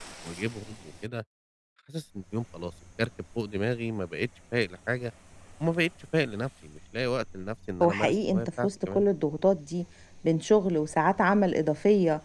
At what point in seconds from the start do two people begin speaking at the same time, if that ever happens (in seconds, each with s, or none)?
7.8 s